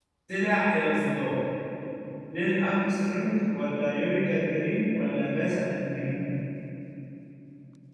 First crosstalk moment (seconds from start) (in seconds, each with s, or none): none